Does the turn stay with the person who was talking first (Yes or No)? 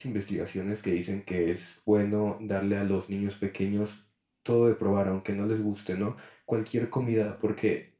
Yes